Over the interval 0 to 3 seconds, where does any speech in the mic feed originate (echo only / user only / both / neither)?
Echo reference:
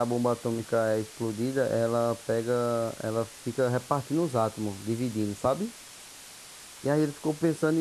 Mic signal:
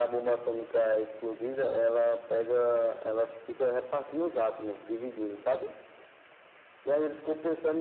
echo only